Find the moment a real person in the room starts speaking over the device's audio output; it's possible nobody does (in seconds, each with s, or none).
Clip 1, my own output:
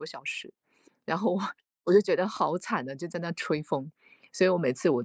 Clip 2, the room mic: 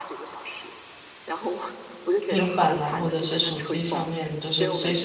2.2 s